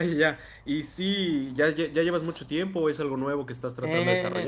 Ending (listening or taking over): taking over